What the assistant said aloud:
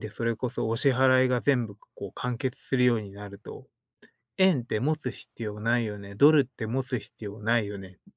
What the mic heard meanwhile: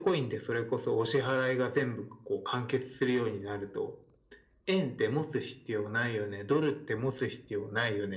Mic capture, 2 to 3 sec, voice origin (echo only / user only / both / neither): echo only